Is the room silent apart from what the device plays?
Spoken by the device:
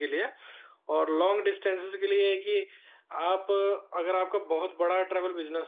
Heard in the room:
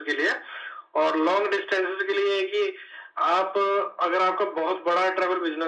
Yes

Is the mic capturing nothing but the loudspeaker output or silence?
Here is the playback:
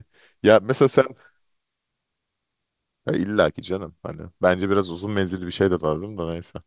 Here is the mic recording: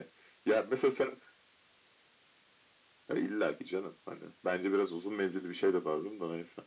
Yes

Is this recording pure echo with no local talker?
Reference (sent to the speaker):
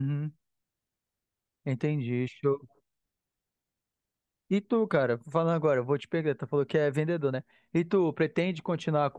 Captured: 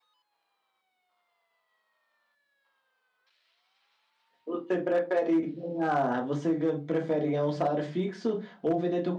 No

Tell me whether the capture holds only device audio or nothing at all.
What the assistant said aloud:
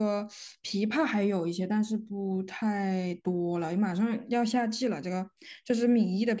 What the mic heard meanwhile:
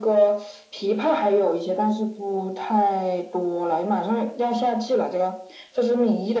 Yes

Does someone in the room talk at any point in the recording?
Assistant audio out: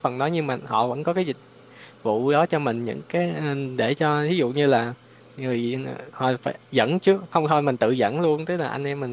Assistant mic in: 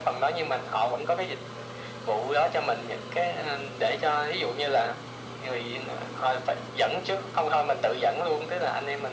No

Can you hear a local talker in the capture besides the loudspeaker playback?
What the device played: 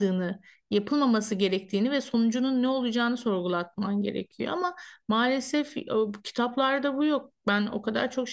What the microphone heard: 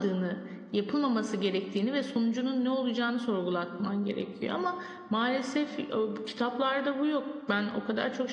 No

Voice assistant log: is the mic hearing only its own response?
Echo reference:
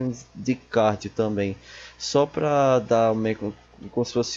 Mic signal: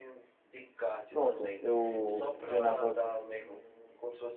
No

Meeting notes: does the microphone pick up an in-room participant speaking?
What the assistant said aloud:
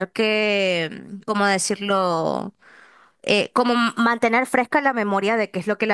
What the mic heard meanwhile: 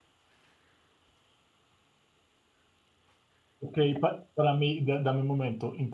Yes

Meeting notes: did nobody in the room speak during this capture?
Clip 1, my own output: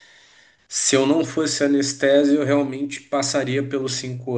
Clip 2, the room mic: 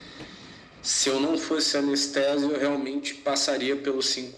Yes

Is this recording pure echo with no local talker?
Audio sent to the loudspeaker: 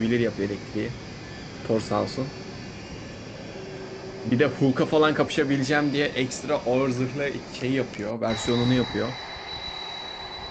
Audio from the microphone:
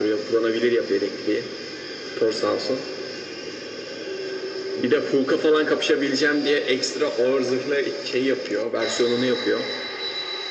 Yes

